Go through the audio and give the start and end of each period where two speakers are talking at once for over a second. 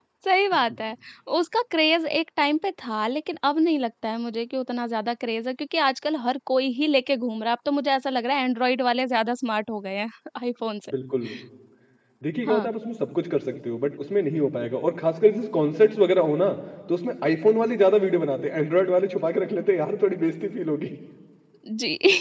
none

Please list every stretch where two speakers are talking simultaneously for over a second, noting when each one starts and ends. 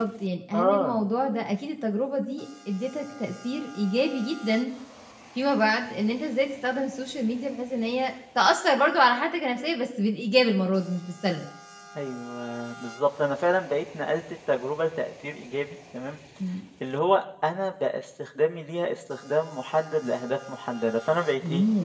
none

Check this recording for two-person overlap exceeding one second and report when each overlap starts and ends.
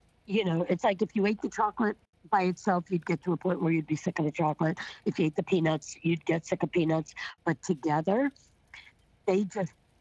none

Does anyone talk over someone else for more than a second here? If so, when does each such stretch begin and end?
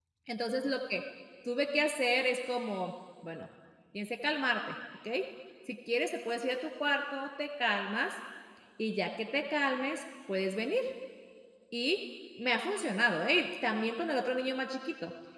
none

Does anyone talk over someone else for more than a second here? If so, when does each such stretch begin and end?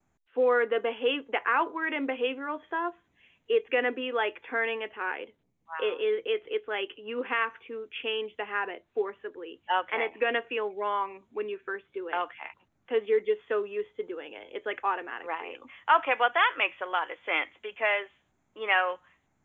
none

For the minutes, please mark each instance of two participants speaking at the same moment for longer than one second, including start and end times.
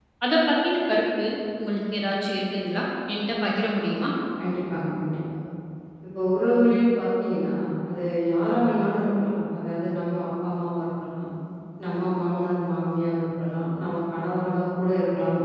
none

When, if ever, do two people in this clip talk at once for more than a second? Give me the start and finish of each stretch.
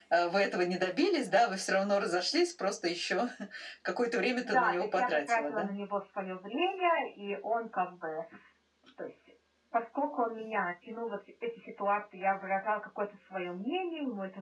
4.4-5.7

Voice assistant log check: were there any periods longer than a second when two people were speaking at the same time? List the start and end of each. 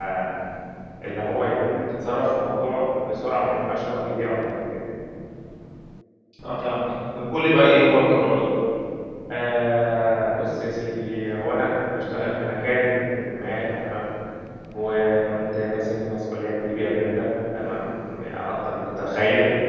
none

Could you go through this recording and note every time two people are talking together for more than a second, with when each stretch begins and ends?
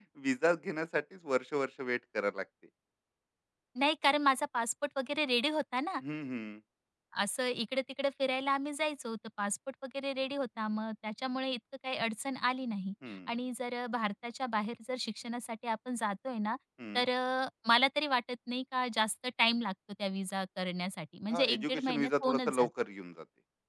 21.3-22.7

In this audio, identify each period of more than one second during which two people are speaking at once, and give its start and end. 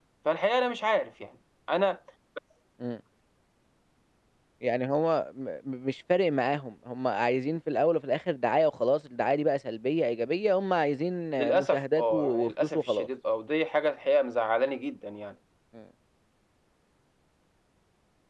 11.5-13.1

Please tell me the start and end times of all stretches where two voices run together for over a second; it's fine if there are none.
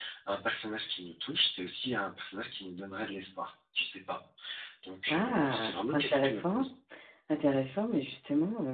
5.1-6.6

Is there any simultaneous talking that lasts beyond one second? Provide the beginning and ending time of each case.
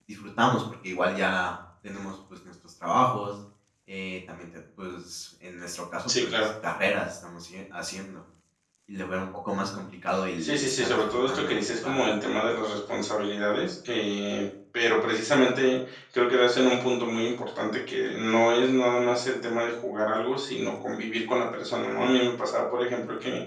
10.4-12.0

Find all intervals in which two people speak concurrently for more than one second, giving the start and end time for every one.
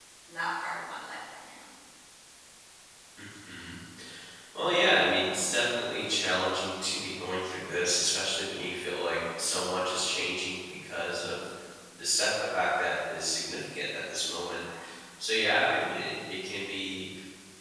none

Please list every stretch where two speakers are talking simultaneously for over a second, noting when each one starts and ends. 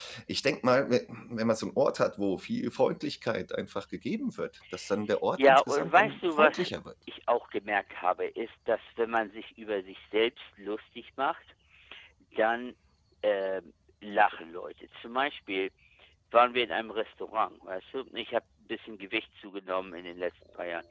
5.4-6.7

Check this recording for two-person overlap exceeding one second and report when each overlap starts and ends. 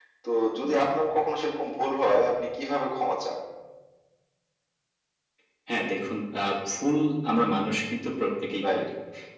none

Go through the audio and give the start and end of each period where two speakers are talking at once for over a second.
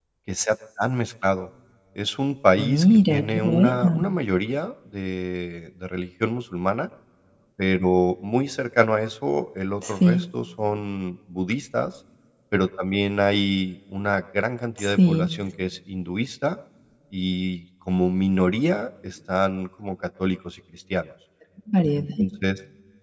2.6-4.0

